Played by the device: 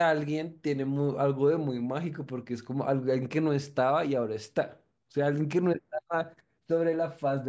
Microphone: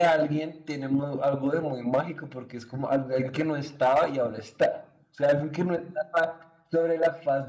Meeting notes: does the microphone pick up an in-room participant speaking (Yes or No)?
No